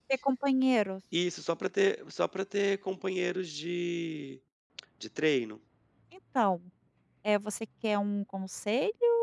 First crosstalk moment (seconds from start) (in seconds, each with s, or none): none